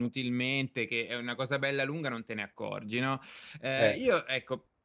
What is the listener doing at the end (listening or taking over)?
listening